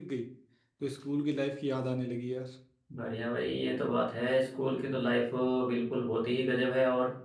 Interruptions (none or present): none